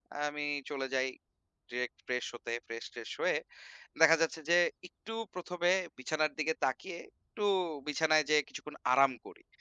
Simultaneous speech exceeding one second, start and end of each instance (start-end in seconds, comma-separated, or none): none